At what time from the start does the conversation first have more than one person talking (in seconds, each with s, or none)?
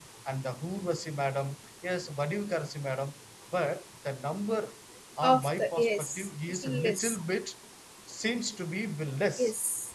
5.2 s